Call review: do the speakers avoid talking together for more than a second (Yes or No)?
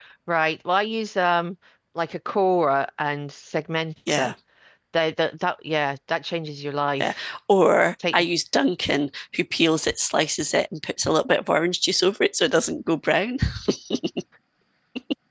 Yes